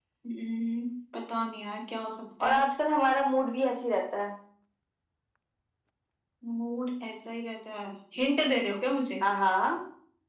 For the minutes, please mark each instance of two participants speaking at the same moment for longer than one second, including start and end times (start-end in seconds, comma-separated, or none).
none